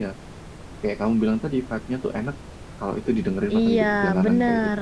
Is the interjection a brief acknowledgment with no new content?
No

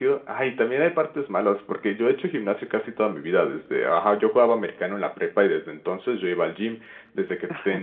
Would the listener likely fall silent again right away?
Yes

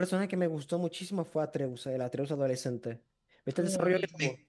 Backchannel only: No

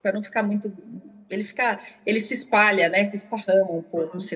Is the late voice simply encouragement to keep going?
No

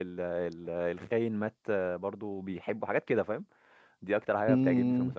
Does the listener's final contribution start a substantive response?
Yes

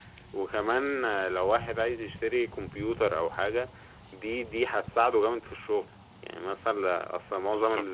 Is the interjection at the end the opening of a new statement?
No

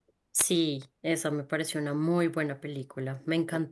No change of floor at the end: Yes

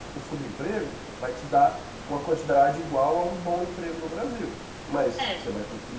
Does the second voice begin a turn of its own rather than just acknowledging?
No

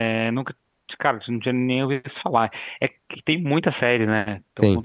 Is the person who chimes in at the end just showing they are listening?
Yes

